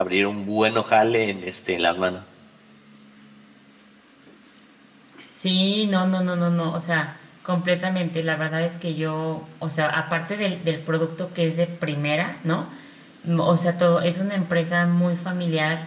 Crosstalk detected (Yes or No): No